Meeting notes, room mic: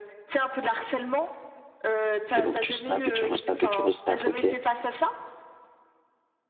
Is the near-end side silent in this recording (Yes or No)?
No